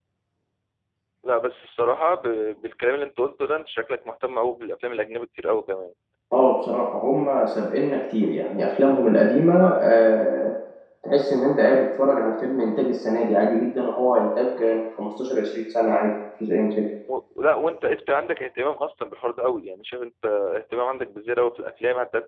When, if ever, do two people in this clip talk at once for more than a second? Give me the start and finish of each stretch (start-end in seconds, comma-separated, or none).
none